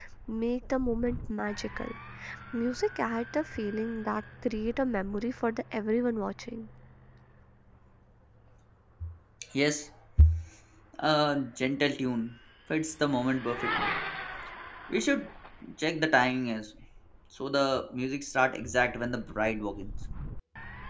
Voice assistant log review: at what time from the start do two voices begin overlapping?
none

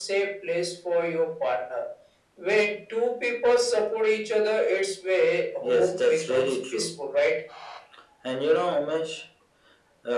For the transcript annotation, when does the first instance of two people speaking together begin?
5.6 s

